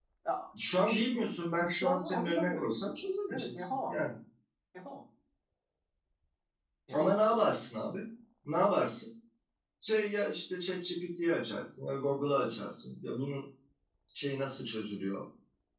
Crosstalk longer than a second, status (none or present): present